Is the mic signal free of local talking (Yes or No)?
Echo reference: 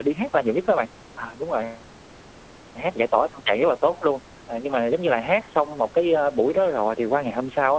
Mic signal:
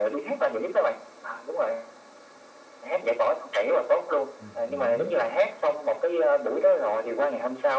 No